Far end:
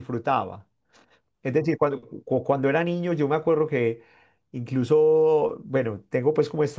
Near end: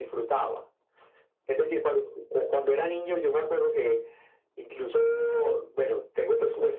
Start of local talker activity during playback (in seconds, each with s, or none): none